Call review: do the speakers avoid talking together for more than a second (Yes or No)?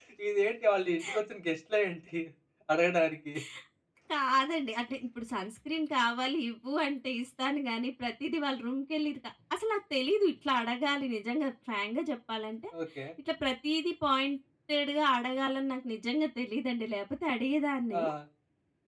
Yes